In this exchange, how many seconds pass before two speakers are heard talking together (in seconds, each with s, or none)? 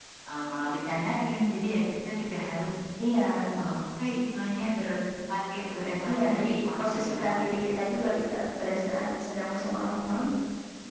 6.0 s